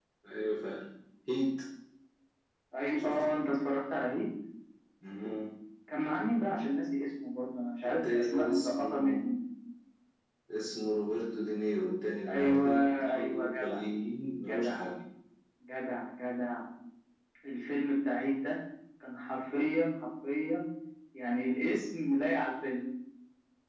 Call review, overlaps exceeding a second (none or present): present